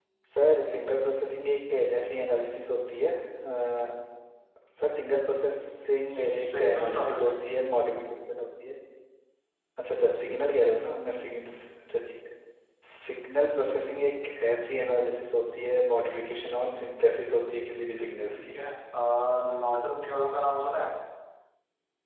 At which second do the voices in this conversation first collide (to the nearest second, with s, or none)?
6 s